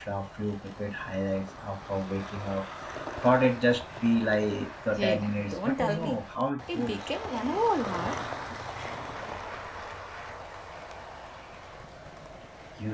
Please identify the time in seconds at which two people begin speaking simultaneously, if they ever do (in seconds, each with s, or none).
5.0 s